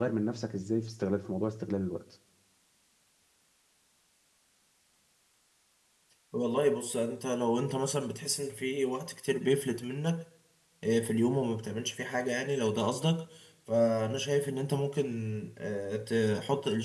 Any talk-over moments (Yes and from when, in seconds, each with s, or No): No